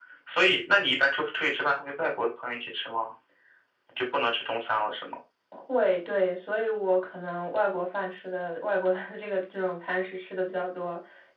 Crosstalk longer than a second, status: none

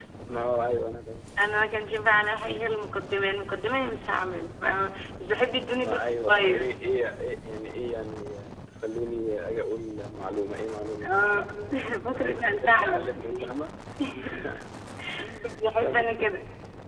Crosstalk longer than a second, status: present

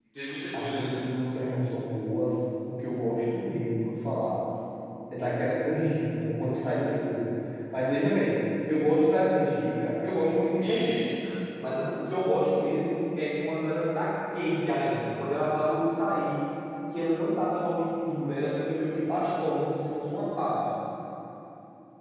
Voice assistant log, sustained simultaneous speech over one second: none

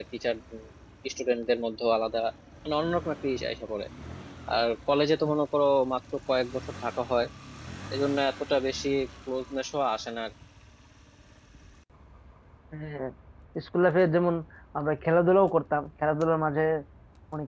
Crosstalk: none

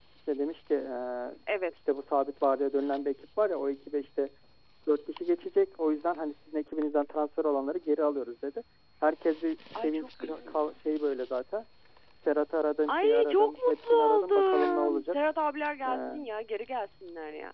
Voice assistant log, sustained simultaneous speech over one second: present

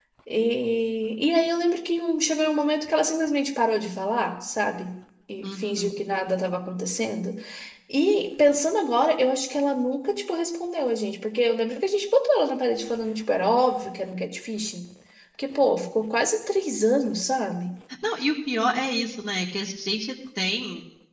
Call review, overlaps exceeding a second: none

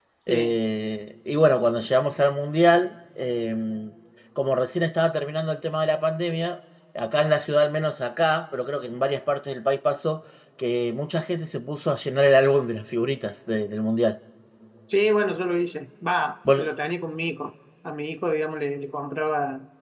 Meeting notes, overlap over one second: none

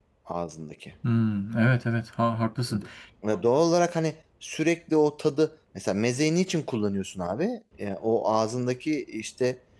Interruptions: none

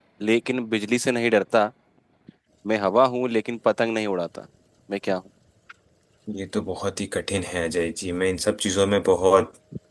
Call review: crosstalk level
none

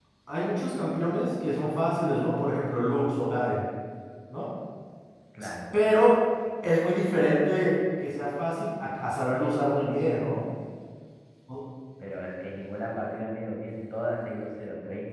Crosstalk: none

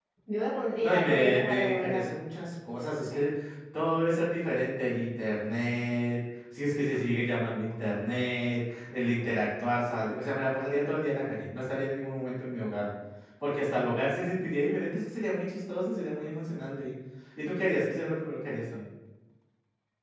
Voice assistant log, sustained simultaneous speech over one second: present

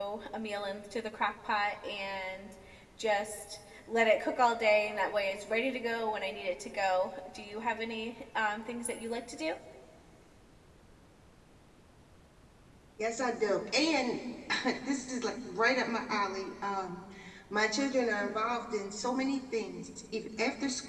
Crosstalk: none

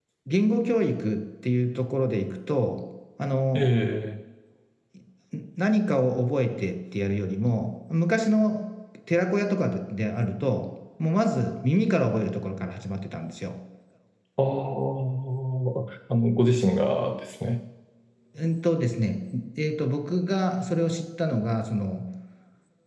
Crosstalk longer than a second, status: none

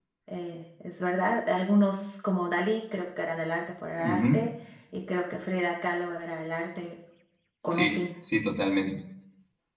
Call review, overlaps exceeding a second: none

